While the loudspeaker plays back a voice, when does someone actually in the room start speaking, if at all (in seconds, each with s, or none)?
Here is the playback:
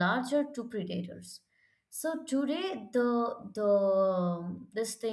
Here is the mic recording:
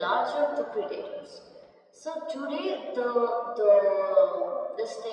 none